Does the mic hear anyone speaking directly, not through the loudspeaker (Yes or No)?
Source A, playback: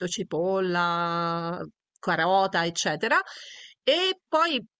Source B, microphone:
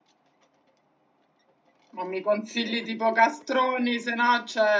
Yes